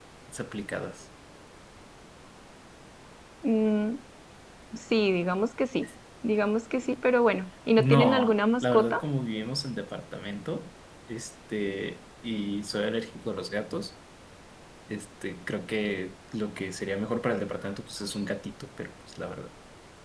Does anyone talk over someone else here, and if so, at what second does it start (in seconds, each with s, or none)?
7.8 s